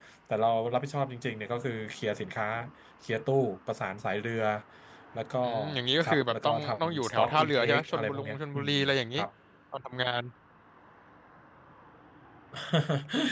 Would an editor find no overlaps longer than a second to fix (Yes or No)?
No